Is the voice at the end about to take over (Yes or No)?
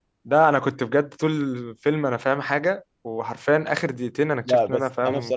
Yes